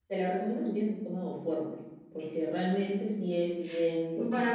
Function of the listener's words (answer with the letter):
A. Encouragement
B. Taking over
B